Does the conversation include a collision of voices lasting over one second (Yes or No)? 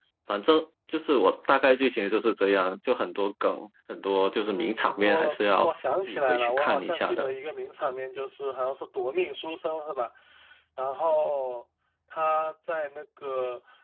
Yes